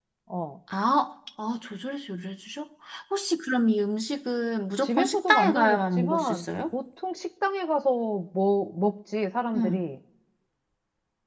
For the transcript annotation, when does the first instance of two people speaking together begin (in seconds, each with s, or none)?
4.8 s